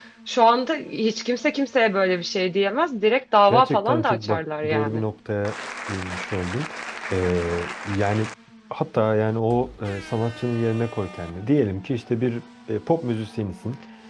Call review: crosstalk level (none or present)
present